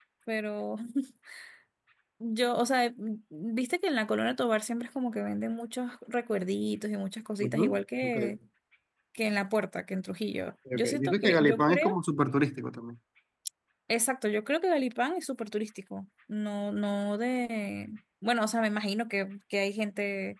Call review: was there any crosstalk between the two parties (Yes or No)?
Yes